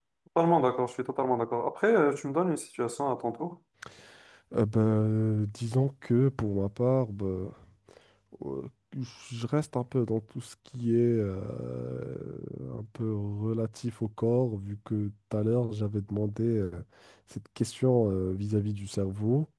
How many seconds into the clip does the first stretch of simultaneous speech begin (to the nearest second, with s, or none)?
none